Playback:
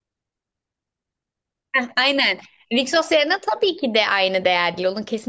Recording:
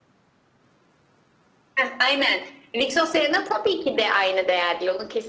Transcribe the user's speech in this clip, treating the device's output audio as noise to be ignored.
none

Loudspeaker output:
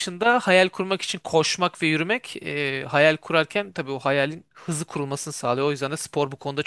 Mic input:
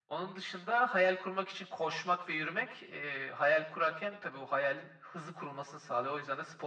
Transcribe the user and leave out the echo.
none

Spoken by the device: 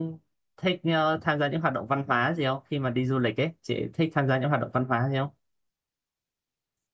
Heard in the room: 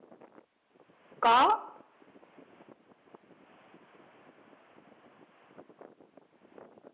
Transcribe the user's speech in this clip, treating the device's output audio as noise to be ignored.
có

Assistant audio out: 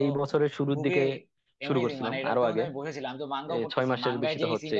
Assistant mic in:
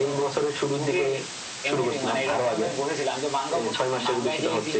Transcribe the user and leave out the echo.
none

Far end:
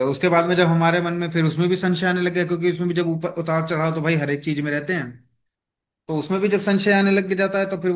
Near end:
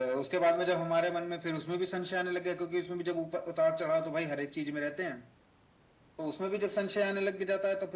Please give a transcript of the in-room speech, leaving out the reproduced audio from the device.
none

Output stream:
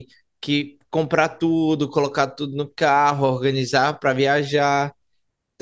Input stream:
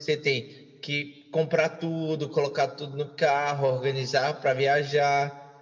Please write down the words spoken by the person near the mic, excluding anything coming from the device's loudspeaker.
none

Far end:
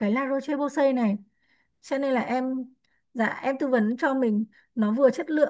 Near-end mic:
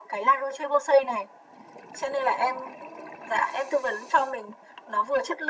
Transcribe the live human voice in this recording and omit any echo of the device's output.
none

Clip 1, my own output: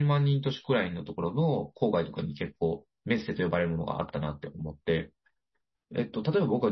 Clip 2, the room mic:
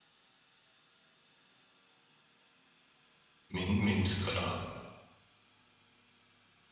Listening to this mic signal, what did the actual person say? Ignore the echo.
メン、メンズから、

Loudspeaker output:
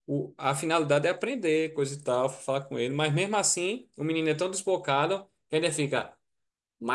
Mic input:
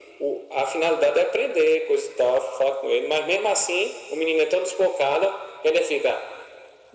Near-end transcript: none

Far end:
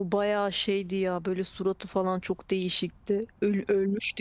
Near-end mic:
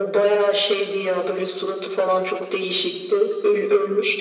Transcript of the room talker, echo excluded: none

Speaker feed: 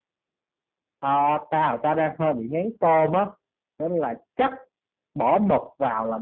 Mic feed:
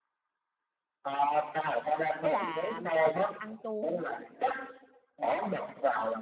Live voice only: ý là mày có thích ăn chua không á

